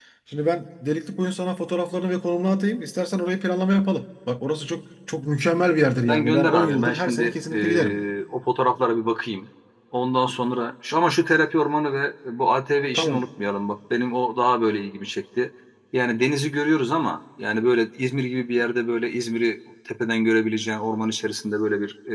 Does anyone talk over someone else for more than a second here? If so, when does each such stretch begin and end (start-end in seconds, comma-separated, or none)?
6.1-7.9